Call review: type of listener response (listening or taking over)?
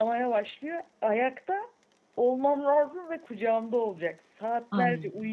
listening